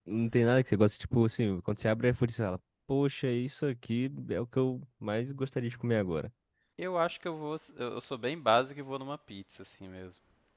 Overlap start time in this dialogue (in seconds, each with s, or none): none